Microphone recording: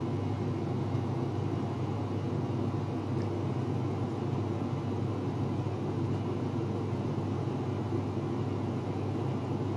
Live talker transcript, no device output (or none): none